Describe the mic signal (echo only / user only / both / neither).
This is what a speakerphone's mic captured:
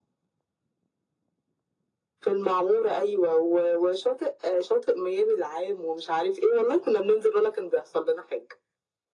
echo only